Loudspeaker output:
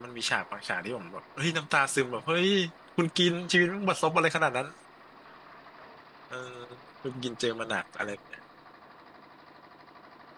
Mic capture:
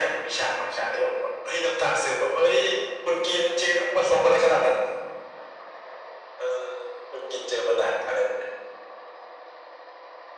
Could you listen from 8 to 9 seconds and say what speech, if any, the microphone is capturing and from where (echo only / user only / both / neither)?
echo only